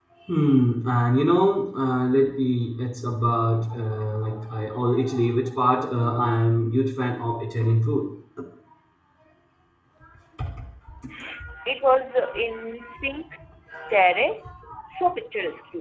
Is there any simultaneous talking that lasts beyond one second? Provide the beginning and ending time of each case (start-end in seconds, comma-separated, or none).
none